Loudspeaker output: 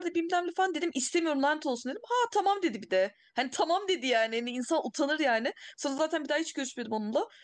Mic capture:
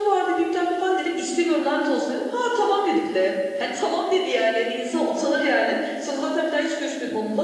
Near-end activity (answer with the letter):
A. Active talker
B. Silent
B